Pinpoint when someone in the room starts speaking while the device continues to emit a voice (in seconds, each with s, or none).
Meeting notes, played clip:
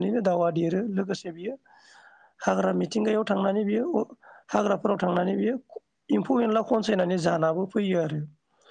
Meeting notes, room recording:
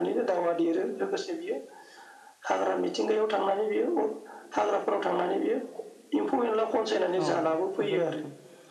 7.2 s